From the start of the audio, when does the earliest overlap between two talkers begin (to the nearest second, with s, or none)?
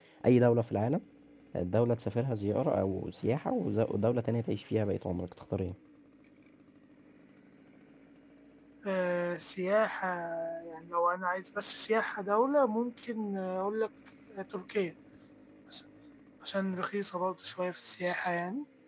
none